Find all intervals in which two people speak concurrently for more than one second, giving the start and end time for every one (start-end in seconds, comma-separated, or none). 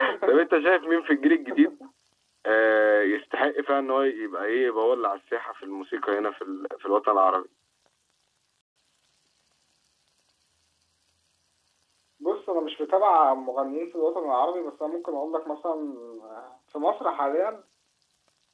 none